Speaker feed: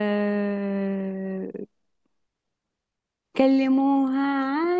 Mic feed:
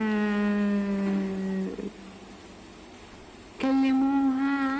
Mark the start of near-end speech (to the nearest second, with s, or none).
none